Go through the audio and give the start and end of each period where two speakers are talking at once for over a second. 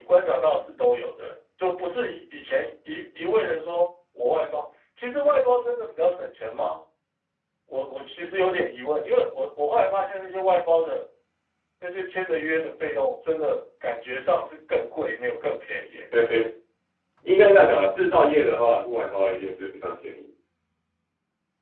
none

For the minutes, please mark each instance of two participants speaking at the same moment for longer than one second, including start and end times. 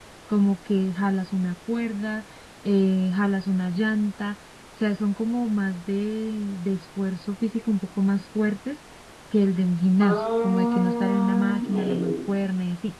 10.0-12.2

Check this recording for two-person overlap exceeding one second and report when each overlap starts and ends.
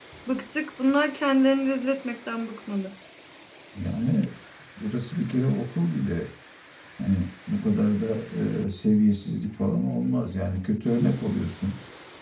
none

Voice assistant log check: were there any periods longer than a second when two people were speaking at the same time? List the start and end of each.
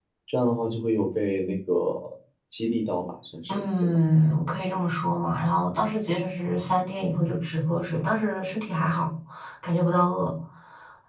none

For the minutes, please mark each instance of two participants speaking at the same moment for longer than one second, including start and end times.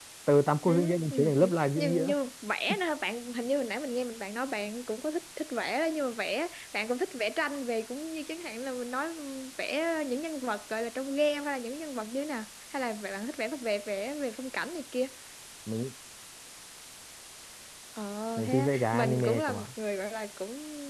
0.7-2.0, 18.4-19.7

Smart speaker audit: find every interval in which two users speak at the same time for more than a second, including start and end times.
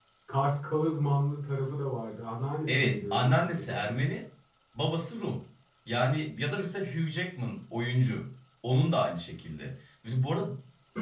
2.7-4.0

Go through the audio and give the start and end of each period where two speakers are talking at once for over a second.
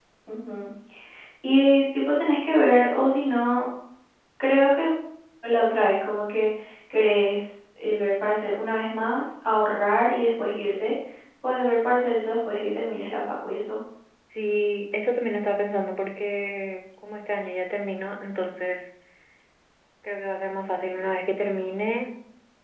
none

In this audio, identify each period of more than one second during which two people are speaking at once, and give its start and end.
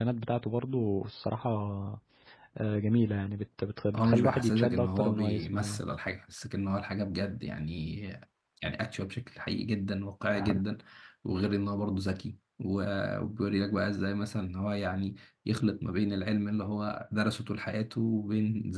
4.0-5.8

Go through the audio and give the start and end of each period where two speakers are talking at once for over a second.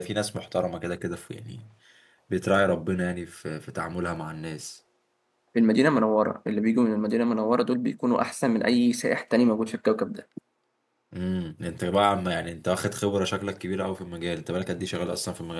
none

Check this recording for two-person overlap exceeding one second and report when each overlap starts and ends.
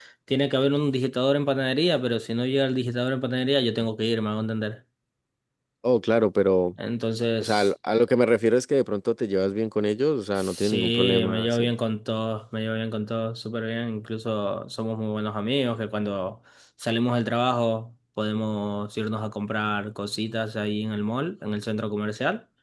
10.4-11.7

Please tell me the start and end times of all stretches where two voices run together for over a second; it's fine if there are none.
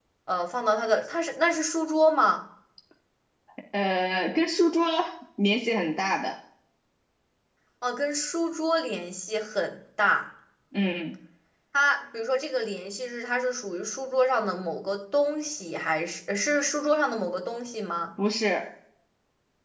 none

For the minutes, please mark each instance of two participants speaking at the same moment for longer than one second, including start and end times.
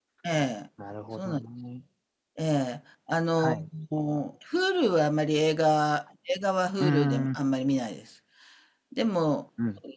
none

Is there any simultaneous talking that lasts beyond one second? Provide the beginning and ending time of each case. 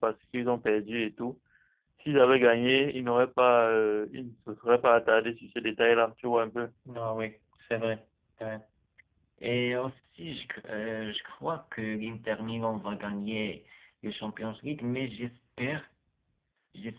none

